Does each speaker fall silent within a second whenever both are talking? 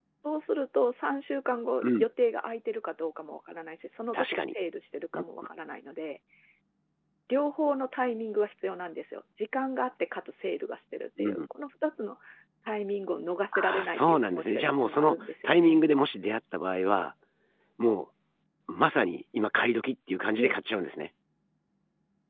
No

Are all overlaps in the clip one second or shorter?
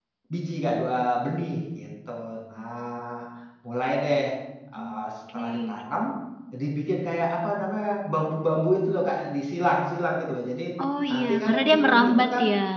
No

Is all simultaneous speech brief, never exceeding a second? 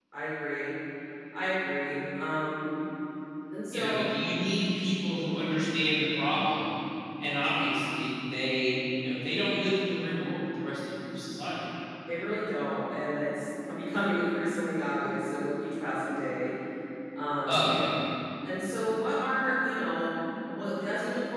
Yes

